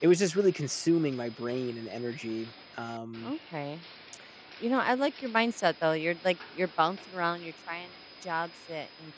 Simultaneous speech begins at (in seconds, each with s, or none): none